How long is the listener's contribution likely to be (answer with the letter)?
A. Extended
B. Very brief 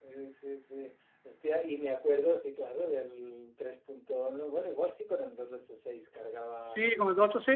A